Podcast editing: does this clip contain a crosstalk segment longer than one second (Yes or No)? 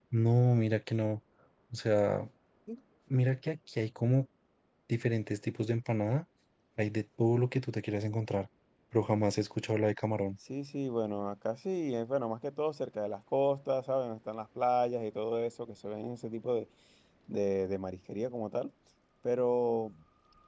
No